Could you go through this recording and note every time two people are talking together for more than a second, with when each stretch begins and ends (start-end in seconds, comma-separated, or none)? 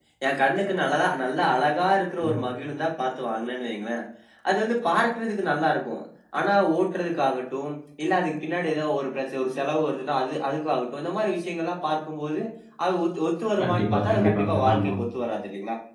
13.6-14.9